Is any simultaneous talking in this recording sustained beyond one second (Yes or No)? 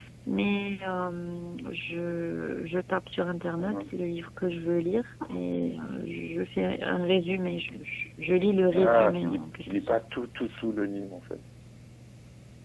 Yes